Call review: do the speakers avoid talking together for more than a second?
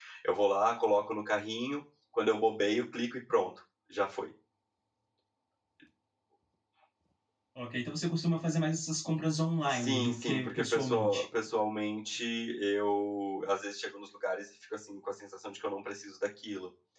No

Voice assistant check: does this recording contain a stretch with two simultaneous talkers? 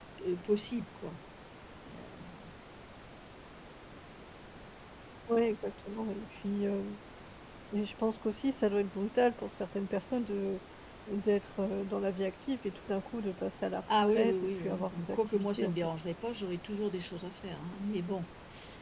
Yes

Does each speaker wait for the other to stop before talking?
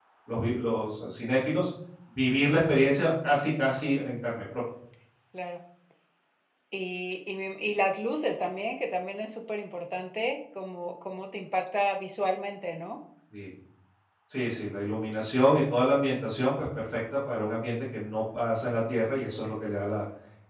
Yes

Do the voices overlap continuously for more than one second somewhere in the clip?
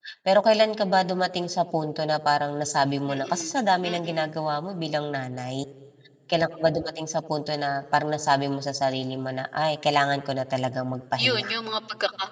No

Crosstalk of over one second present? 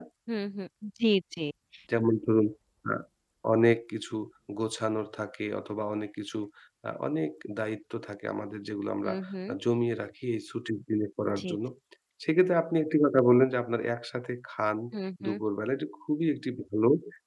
No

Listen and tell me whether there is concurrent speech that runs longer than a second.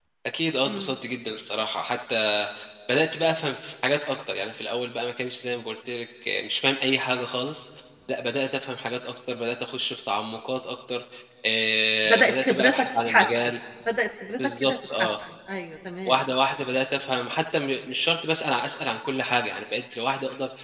Yes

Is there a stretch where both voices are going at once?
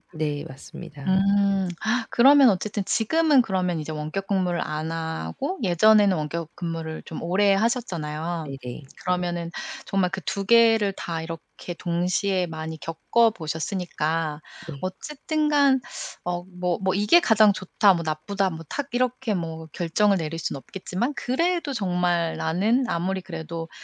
No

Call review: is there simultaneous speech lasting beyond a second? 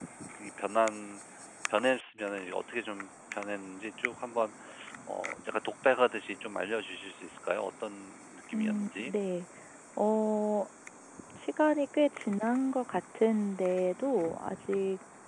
No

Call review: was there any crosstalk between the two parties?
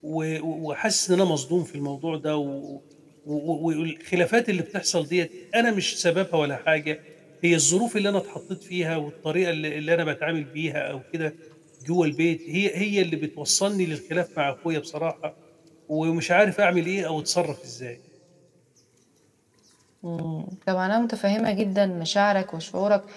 No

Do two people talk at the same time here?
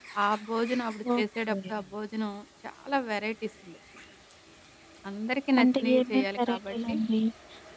Yes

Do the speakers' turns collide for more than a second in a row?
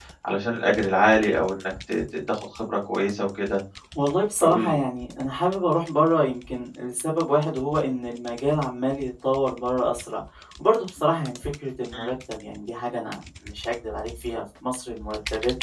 No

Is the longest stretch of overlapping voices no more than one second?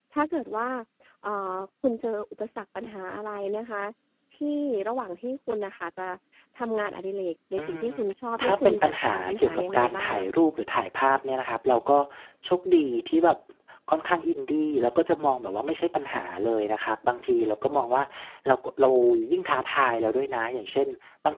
No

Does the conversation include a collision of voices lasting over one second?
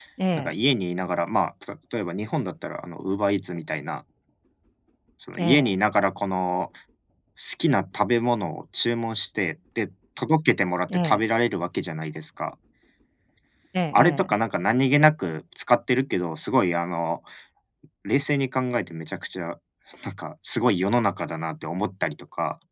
No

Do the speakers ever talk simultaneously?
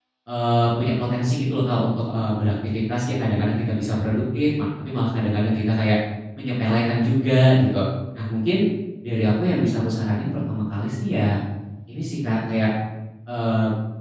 No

